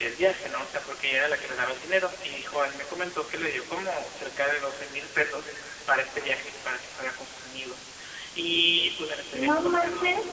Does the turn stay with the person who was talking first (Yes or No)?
No